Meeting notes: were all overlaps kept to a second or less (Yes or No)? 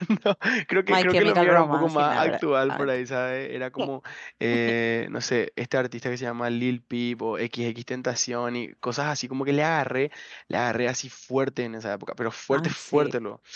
No